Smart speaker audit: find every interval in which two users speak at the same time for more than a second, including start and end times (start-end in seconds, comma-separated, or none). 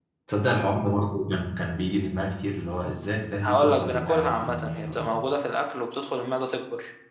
3.4-5.3